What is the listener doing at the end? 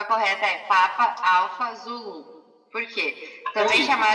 listening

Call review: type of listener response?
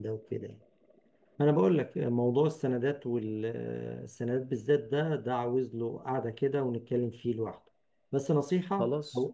listening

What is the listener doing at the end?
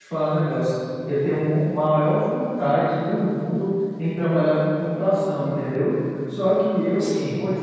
listening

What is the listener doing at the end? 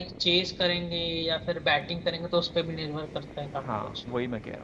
taking over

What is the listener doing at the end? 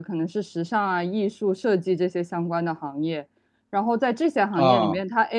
listening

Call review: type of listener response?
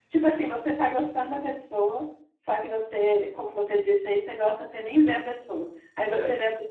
listening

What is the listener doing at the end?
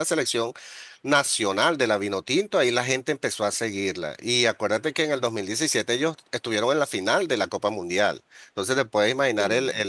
listening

